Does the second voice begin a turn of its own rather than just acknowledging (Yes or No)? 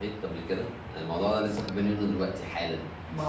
No